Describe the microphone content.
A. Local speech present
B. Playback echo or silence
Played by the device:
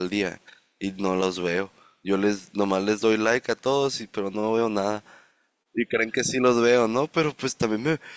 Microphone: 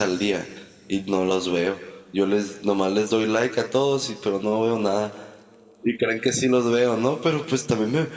B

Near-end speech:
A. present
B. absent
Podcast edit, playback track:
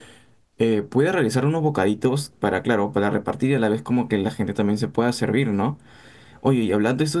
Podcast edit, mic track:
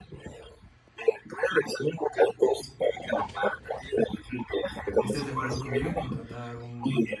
A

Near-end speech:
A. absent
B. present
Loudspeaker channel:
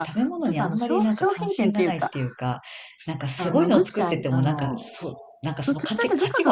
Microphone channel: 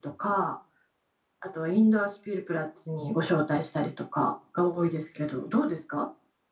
B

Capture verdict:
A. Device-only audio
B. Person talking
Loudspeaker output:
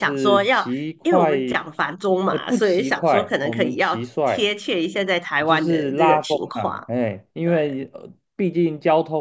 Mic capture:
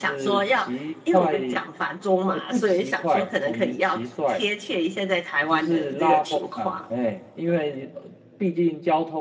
A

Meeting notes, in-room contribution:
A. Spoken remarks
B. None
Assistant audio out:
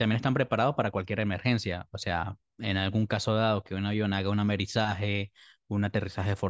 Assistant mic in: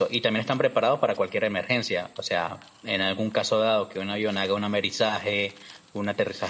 B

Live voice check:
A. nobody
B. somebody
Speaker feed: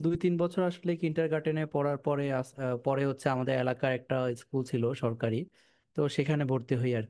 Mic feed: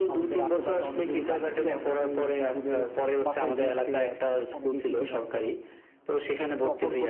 B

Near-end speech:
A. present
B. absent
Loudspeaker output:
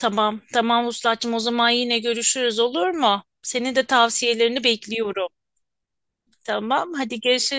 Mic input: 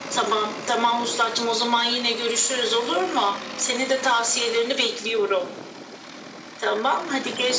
B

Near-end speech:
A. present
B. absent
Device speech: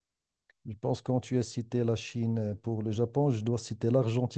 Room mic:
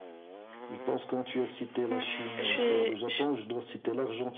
A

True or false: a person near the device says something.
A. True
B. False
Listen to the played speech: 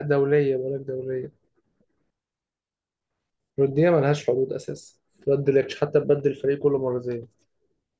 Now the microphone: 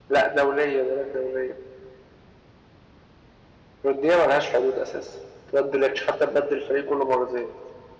B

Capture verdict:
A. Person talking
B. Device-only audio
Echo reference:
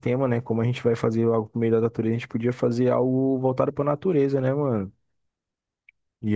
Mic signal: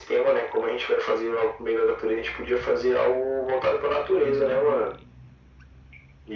A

